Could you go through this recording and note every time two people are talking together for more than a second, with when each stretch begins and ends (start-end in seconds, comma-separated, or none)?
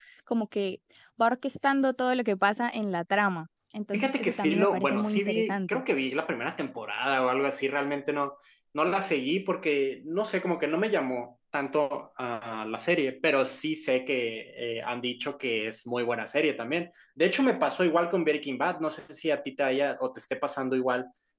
3.9-5.8